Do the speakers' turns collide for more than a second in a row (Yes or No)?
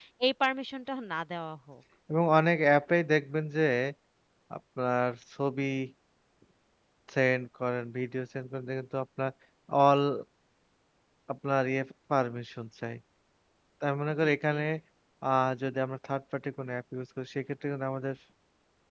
No